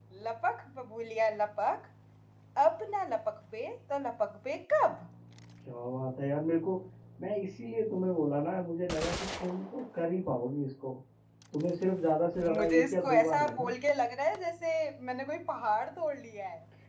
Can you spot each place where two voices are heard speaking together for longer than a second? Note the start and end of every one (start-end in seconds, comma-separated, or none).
12.4-13.7